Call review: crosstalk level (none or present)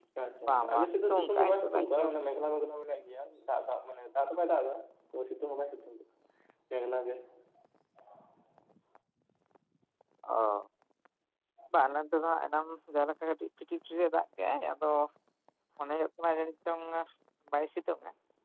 present